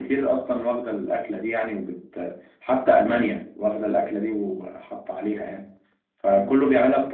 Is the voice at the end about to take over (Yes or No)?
No